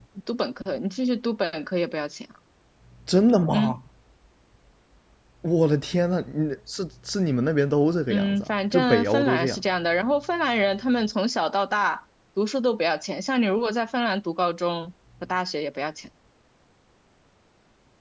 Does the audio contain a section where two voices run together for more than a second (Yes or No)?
Yes